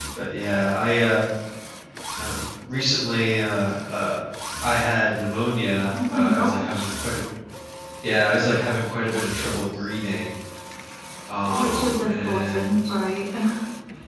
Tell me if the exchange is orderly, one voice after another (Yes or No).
No